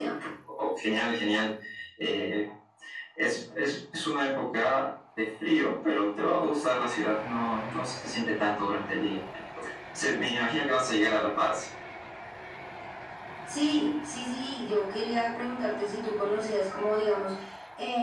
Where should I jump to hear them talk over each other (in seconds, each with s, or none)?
none